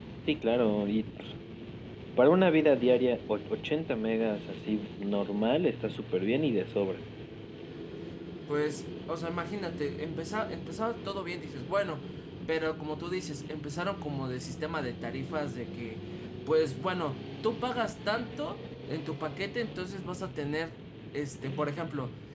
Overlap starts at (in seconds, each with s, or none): none